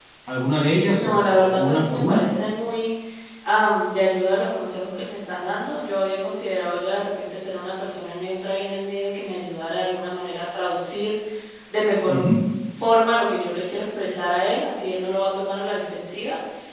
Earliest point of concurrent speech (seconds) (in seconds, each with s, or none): 0.9 s